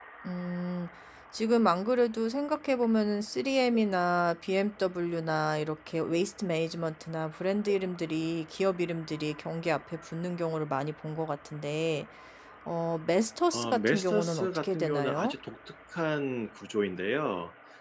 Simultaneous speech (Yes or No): Yes